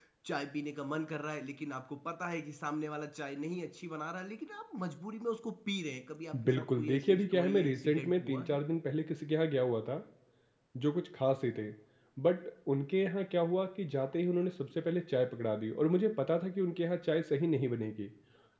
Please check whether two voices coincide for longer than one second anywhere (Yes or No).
Yes